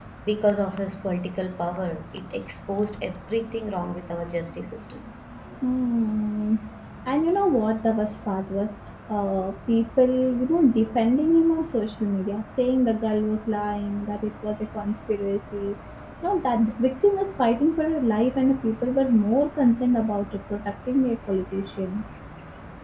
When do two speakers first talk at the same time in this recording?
none

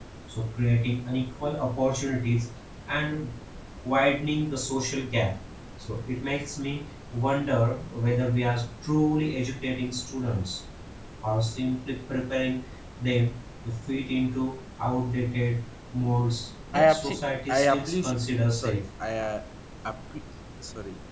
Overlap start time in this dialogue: 16.7 s

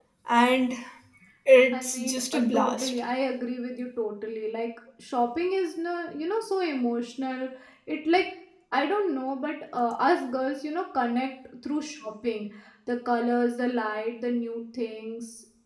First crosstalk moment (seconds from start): 1.7 s

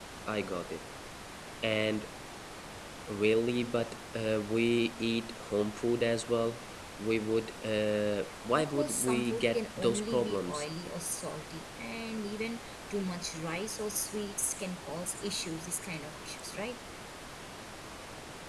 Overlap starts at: 8.6 s

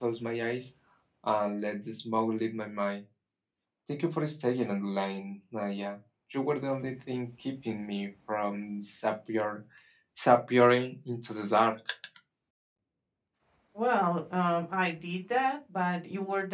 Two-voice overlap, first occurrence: none

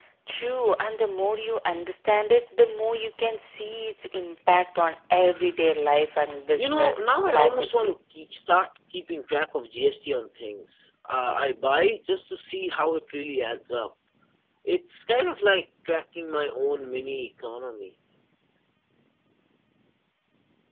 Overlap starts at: 6.6 s

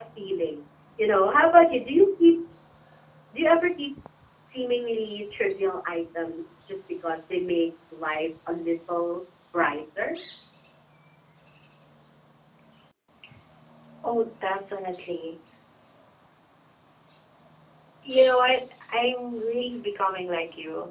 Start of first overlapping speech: none

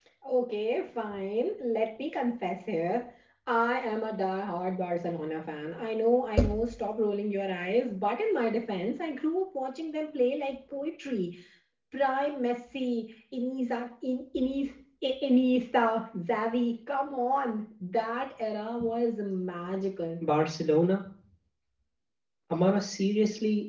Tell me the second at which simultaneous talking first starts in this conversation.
none

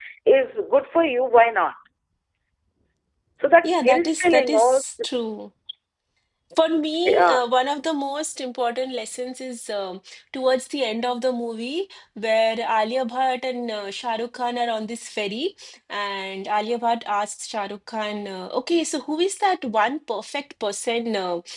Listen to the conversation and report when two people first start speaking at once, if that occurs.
3.6 s

